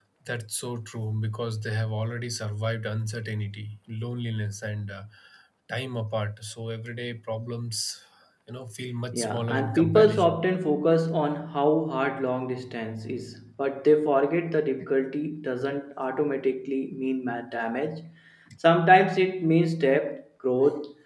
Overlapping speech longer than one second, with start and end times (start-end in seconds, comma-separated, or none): 9.1-10.4